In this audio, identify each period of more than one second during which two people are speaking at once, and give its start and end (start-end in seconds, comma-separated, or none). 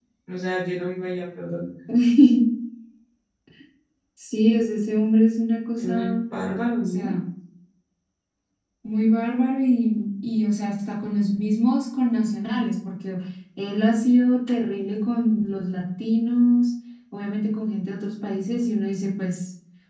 none